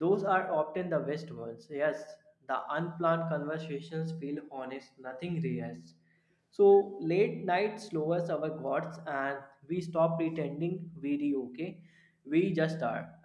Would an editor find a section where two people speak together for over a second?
No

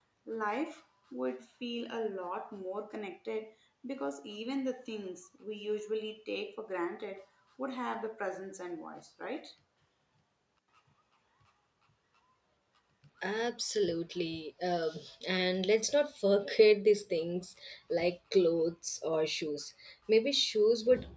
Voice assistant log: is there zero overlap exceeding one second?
Yes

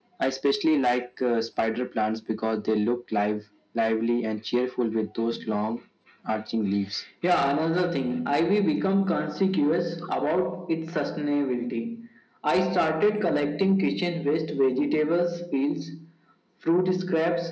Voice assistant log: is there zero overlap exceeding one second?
Yes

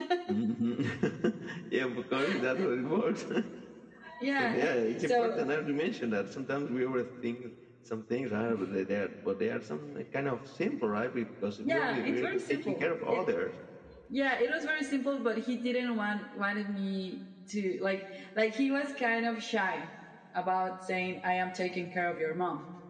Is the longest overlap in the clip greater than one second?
Yes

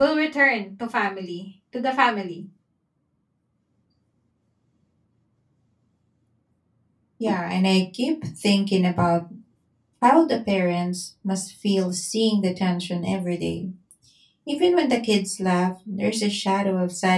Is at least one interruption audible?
No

